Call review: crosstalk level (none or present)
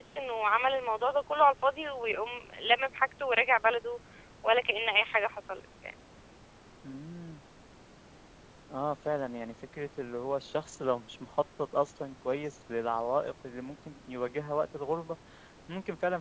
none